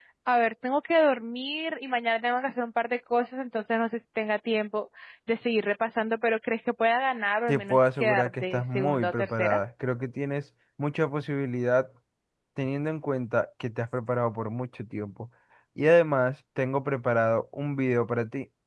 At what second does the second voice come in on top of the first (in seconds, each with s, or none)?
7.5 s